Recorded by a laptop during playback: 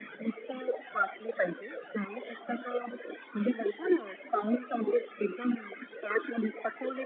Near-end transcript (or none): none